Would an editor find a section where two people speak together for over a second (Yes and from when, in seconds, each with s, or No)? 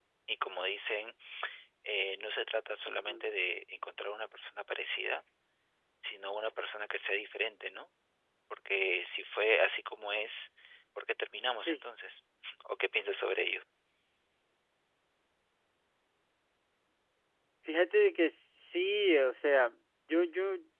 No